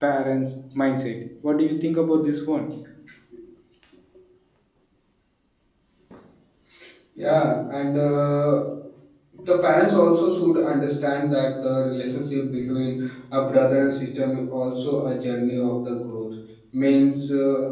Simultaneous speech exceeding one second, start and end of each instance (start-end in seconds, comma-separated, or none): none